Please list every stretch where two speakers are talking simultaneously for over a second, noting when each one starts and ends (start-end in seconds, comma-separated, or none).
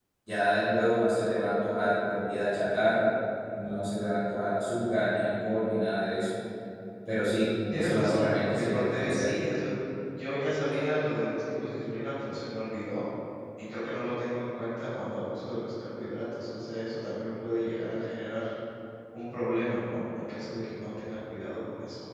7.7-9.3